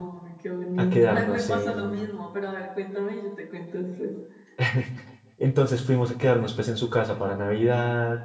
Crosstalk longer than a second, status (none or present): present